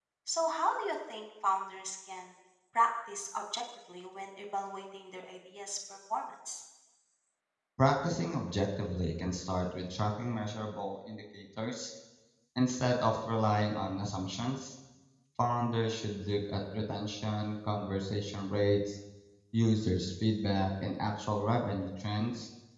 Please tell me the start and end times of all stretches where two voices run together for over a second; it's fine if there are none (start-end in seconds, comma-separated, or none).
none